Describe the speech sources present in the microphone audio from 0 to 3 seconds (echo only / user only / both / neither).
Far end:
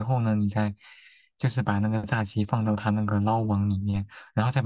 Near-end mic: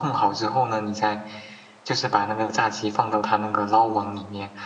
echo only